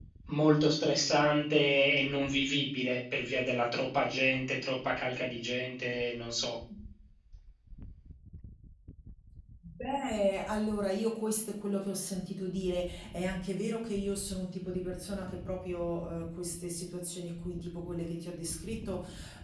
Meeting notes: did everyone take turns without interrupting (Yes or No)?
Yes